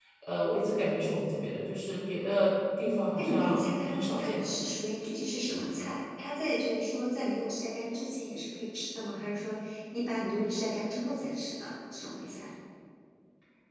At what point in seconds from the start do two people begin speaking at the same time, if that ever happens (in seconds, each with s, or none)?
3.2 s